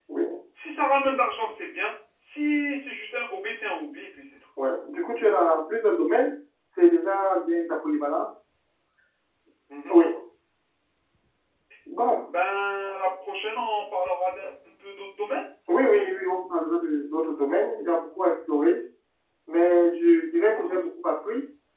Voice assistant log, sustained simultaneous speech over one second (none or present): none